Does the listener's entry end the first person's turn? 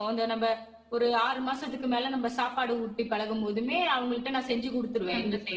Yes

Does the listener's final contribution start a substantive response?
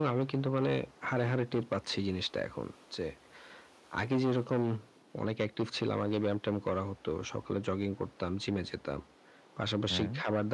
No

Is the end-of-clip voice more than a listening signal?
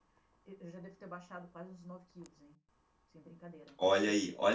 Yes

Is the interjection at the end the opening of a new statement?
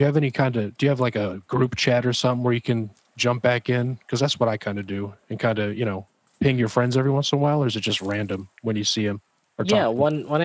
Yes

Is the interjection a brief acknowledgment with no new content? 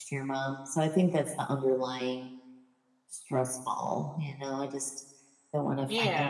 Yes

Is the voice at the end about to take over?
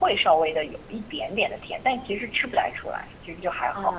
Yes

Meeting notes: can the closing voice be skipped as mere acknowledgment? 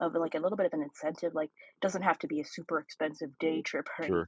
Yes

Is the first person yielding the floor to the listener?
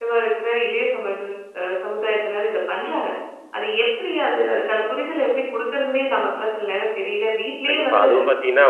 Yes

